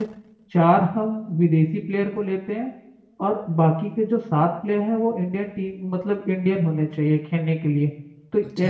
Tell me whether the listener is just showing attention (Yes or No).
No